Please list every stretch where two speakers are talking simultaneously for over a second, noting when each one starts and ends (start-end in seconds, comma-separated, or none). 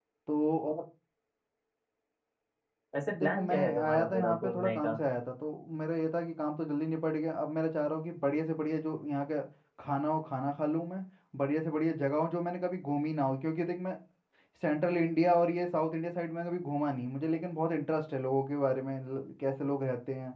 3.2-5.0